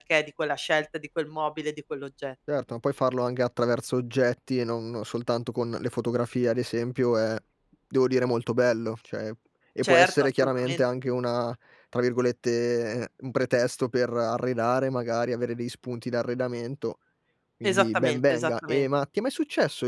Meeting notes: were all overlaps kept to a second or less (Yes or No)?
No